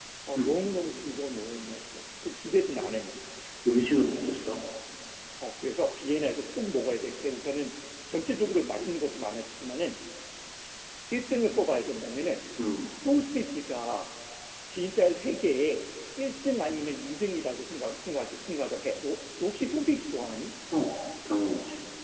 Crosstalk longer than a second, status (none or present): none